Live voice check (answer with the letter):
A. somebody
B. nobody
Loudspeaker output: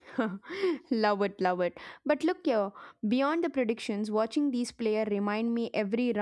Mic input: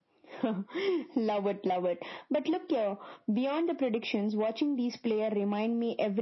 B